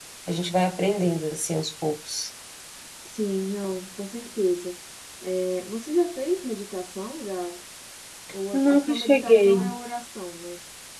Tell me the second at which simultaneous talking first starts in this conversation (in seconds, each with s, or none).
8.5 s